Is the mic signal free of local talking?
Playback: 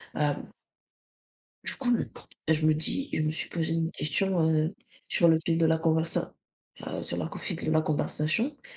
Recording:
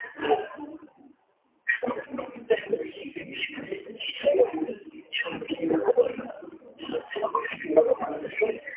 Yes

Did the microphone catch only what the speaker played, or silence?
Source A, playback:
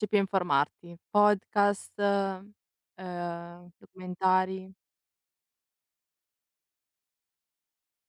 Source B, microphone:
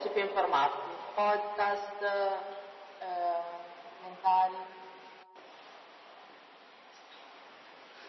Yes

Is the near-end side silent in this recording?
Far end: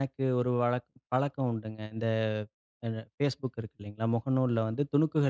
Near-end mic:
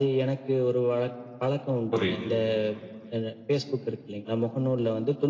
No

